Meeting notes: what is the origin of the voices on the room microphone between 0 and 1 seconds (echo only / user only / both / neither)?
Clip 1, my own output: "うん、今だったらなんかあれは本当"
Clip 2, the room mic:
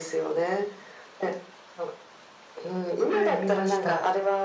echo only